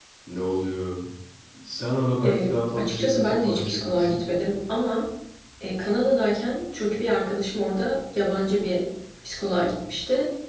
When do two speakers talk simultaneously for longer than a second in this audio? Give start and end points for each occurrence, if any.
2.2-4.2

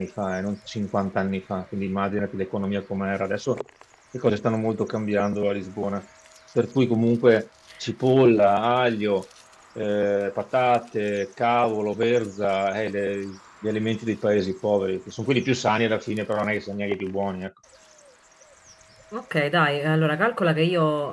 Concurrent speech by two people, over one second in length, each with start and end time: none

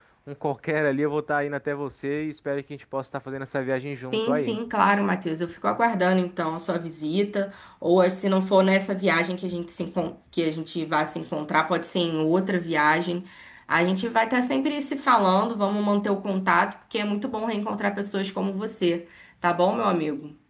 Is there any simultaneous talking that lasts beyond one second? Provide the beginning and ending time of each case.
none

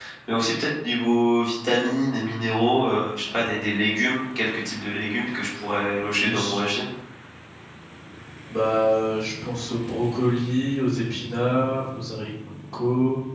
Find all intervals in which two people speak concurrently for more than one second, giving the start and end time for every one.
none

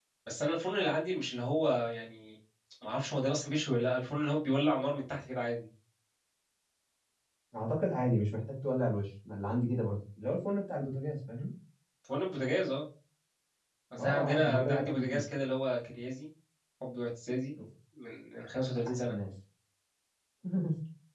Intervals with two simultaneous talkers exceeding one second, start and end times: 14.0-15.2

